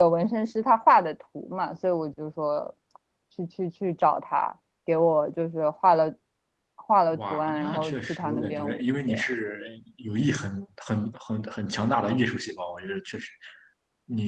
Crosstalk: present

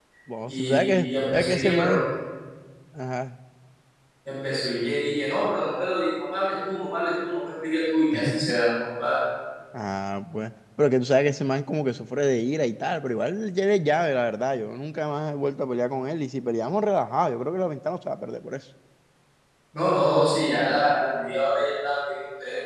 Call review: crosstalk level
present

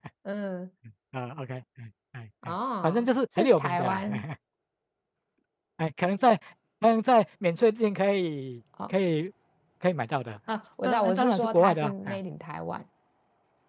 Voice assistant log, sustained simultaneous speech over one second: present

